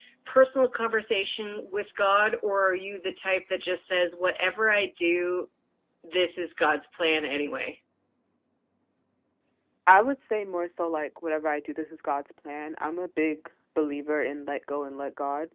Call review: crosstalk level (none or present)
none